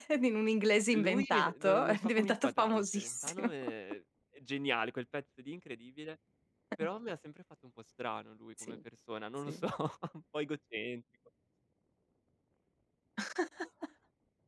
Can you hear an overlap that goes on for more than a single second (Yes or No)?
Yes